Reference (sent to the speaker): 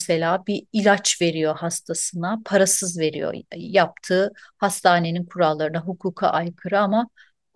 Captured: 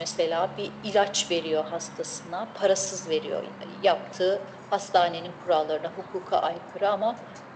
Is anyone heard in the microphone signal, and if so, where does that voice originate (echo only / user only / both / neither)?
echo only